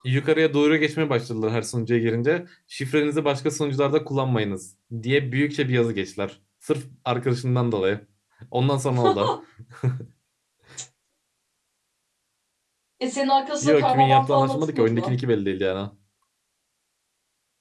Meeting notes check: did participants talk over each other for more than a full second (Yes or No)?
Yes